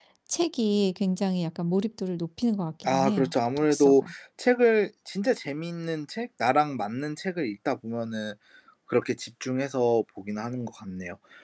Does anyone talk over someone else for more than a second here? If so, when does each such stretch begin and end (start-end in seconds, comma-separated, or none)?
2.8-4.1